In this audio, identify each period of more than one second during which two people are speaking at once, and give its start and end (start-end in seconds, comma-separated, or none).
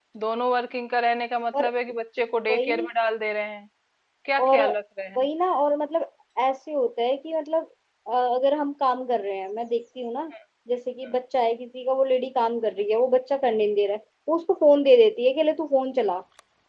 none